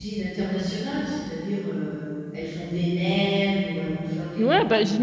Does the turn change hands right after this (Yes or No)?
Yes